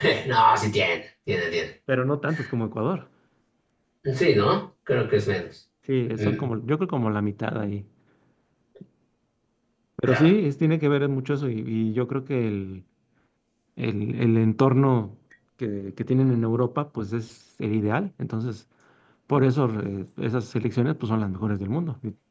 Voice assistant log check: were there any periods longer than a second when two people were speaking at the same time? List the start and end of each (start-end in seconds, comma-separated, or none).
none